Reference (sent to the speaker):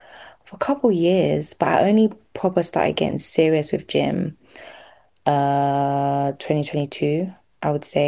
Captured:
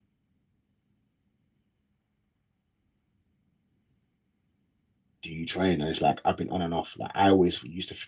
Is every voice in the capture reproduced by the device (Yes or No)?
No